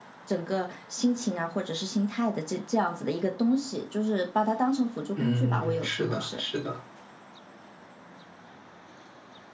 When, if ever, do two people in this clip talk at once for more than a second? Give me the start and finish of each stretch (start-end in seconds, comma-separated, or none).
5.2-6.4